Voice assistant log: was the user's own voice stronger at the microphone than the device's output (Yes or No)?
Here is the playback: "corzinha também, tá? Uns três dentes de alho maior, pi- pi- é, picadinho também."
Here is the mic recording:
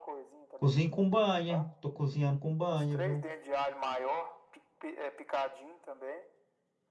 Yes